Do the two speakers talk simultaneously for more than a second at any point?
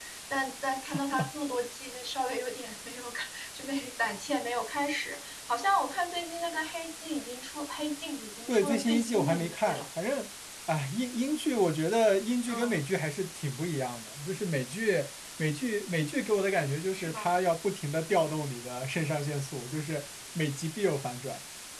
Yes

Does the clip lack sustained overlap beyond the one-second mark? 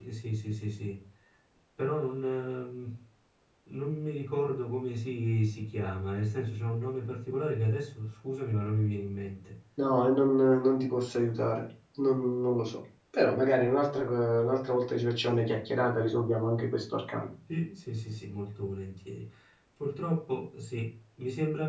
Yes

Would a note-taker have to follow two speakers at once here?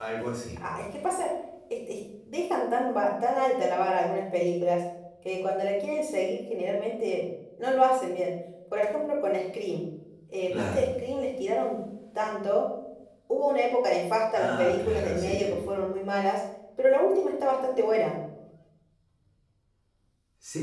Yes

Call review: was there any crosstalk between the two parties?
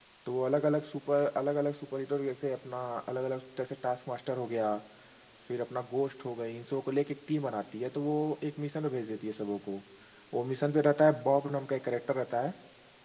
No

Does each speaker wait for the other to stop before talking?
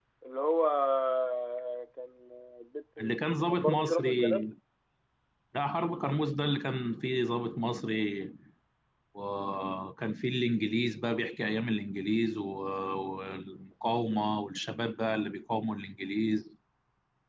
No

